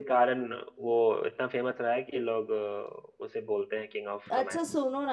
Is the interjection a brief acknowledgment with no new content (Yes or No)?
No